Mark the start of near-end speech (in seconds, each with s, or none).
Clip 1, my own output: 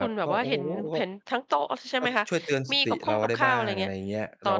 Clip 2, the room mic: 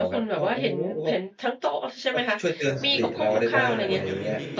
2.6 s